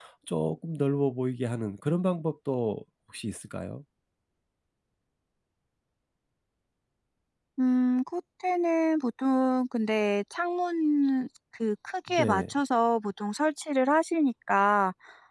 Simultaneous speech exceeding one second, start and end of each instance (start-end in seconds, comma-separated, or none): none